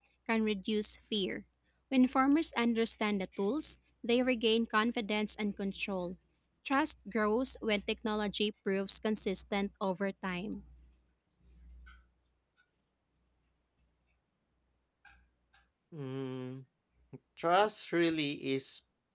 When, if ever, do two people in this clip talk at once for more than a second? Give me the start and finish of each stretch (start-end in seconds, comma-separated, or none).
none